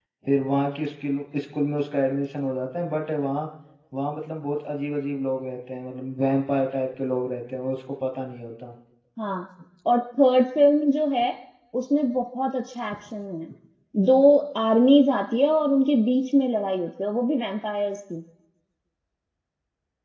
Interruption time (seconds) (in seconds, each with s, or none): none